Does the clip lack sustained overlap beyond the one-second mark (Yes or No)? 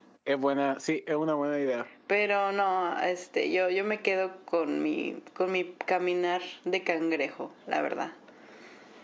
Yes